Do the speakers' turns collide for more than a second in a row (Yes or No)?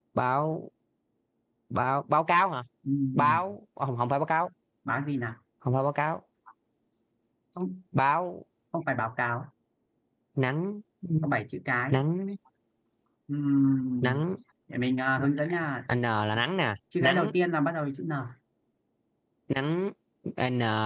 No